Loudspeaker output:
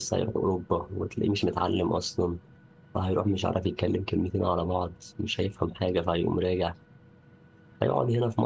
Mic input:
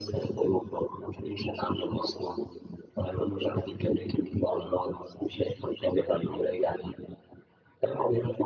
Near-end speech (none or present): none